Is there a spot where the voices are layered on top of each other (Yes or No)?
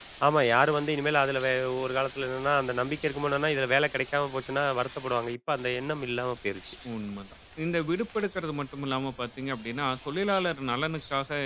No